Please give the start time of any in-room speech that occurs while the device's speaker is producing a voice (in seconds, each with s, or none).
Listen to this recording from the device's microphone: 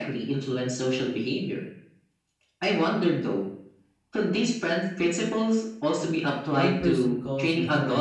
6.6 s